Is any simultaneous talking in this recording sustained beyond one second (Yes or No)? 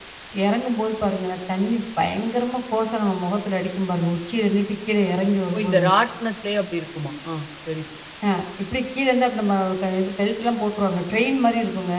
No